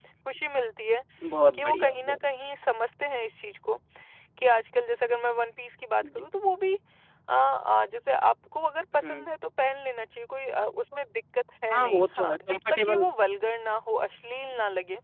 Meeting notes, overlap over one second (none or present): present